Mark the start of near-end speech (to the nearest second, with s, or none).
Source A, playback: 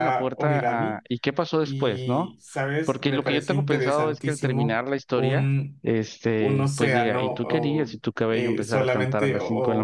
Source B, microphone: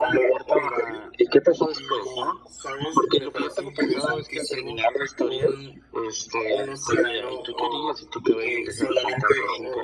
none